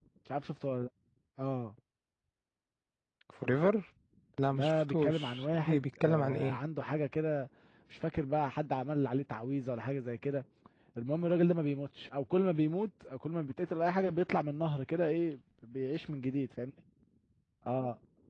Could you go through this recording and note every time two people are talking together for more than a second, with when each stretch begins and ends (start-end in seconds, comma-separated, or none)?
4.5-6.6